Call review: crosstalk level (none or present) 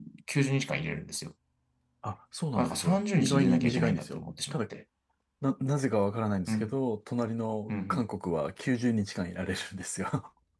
present